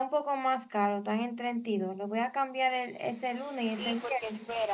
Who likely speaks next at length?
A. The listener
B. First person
A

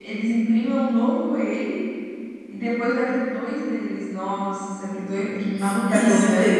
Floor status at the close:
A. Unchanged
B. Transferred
B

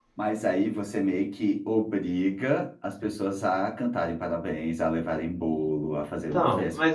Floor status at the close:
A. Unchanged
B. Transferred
B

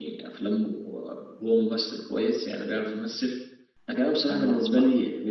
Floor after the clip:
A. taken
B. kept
B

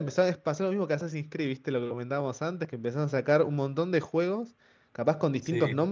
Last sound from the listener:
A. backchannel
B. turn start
A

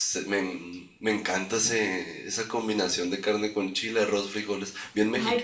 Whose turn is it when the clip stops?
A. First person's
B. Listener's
B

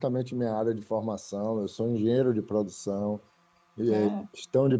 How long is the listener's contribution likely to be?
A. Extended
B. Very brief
B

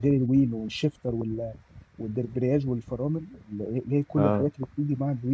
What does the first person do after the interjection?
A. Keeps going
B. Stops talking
A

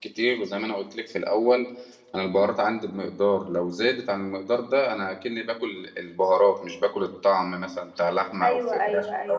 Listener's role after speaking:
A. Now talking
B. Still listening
A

